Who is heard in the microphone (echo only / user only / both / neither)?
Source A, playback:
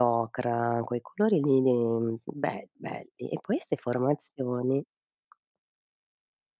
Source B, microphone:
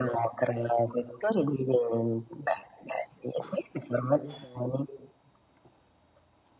echo only